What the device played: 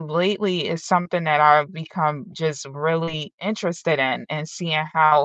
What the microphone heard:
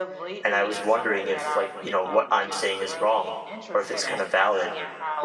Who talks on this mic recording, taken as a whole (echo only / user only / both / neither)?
both